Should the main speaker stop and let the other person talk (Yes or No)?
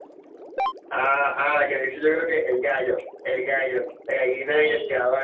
No